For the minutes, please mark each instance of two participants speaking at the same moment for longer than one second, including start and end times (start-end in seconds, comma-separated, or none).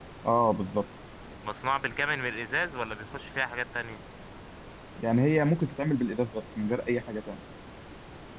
none